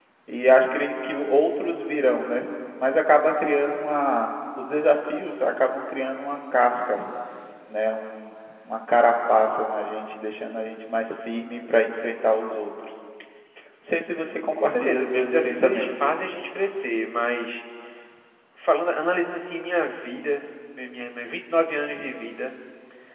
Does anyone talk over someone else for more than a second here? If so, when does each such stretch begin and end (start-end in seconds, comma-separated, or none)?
14.6-15.9